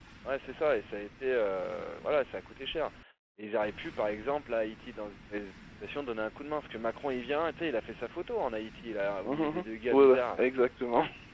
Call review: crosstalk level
present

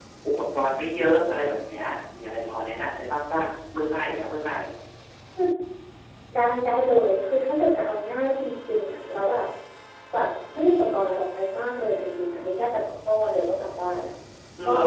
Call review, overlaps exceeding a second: none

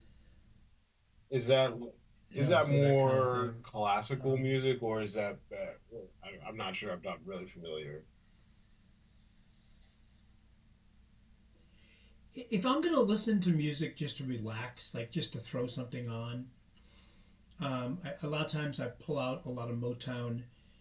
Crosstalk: present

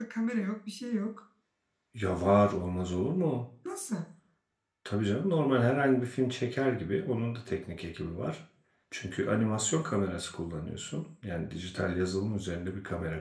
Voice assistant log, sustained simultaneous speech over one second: none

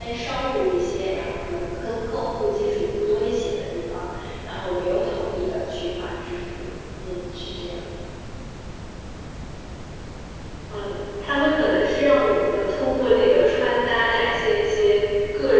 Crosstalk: none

